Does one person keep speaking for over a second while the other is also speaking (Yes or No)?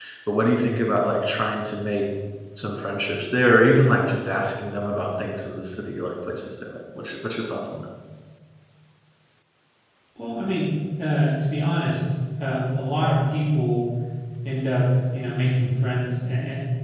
No